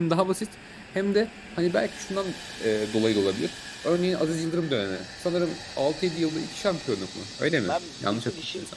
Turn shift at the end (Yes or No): Yes